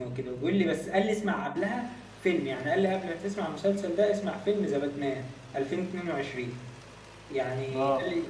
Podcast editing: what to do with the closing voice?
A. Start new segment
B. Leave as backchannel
B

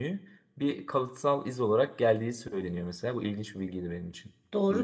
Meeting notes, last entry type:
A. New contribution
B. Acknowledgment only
A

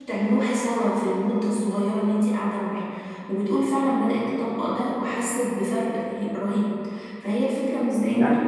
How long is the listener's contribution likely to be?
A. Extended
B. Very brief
B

